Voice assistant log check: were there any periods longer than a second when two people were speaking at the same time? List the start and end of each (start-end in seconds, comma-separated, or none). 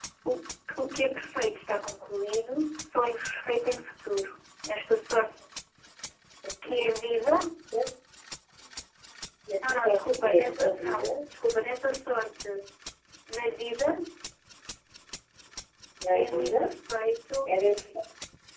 9.7-11.1